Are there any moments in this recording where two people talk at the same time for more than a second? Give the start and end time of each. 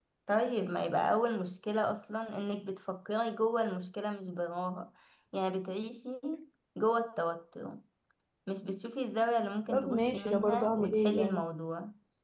9.7-11.4

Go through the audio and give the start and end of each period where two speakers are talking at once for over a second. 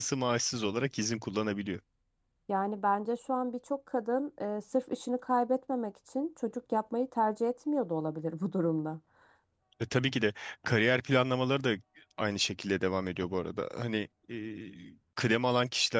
none

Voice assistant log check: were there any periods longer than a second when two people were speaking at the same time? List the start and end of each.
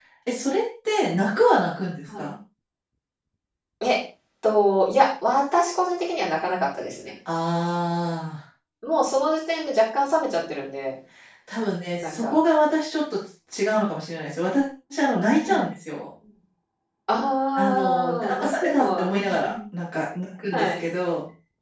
17.6-19.5

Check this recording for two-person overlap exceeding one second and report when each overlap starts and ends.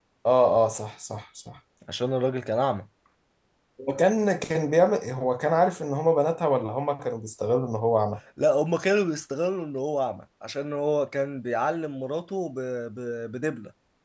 none

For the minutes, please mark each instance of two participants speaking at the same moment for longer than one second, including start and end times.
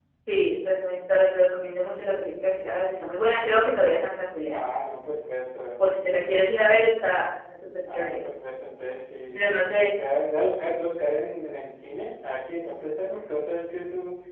none

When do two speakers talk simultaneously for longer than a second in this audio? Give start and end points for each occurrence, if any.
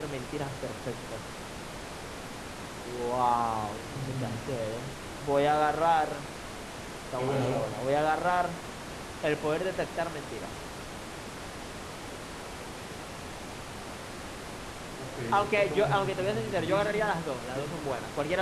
15.3-17.0

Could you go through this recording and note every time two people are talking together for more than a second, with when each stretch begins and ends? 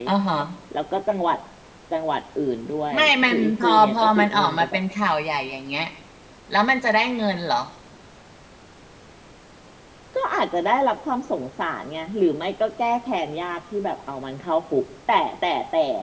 2.9-4.8

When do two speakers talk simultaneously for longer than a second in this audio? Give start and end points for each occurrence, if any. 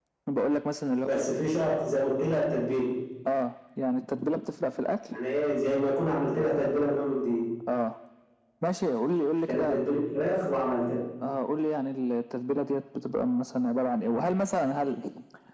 none

